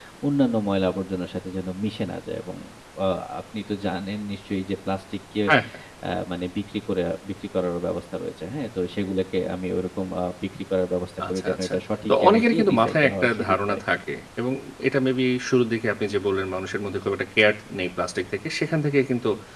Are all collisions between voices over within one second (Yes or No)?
No